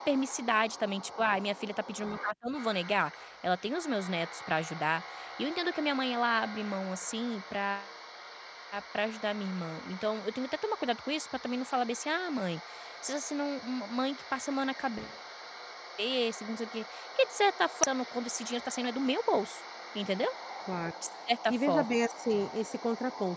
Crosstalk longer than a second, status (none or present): none